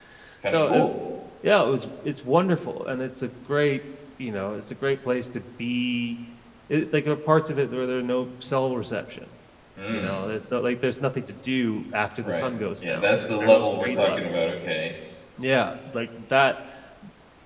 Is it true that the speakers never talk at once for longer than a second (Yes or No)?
No